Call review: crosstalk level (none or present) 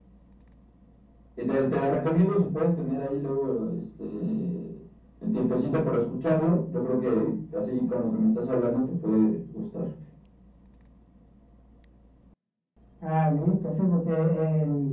none